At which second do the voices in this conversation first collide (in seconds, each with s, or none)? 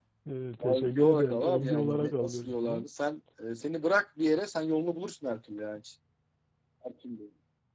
0.6 s